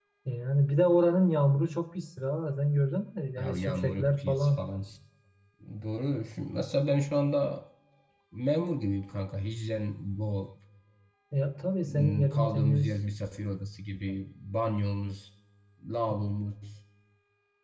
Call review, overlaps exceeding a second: present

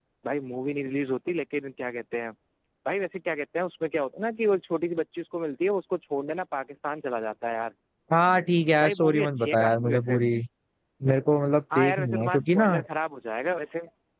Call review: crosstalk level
present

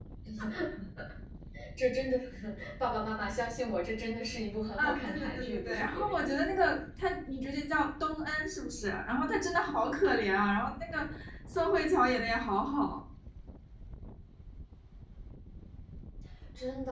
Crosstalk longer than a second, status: present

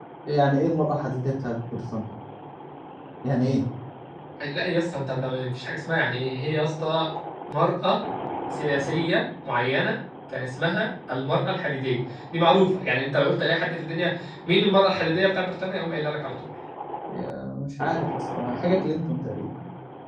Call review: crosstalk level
none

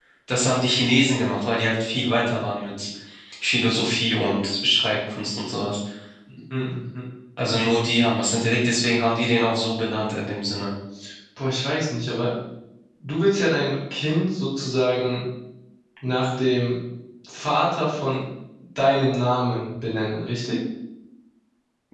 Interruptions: none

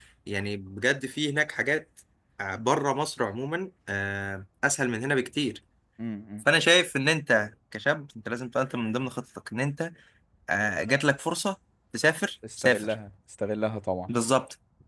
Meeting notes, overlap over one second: none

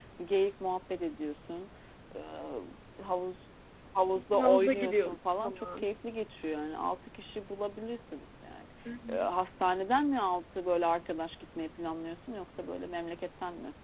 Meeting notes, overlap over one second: present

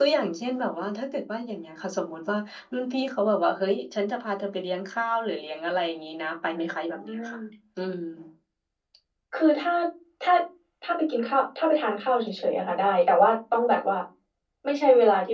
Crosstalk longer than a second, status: none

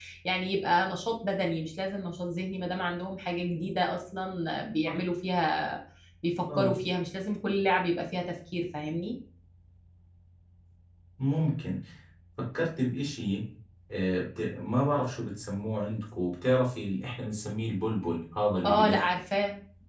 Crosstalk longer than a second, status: none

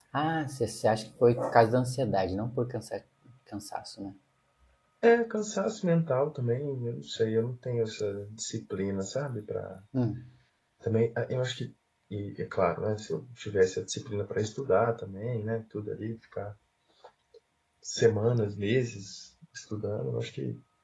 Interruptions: none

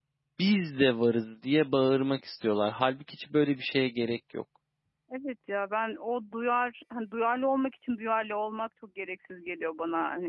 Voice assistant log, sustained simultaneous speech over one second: none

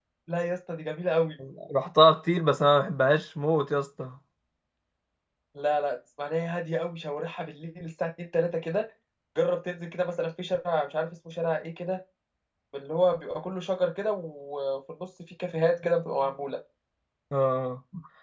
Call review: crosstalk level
none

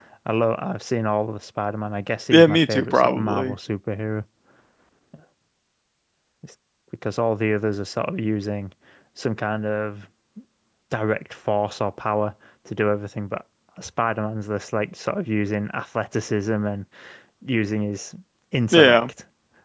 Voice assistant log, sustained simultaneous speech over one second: present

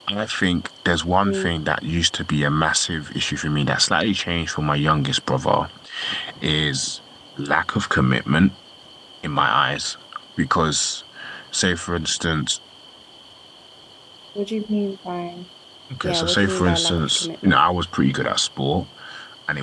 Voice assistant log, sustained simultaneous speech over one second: present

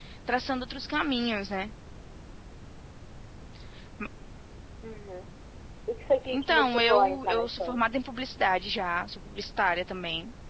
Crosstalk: present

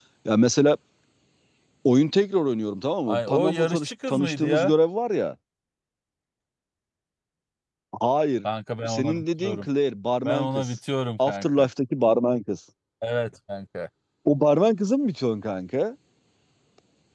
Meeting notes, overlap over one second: present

